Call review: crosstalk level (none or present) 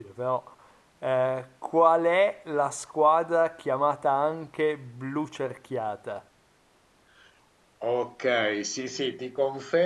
none